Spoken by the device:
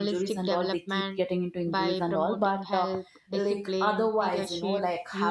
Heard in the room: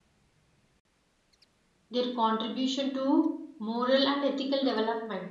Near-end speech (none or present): present